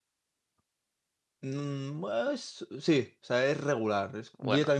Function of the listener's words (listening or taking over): listening